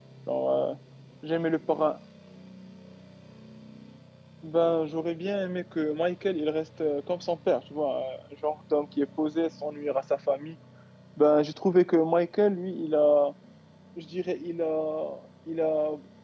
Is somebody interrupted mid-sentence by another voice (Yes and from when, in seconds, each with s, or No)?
No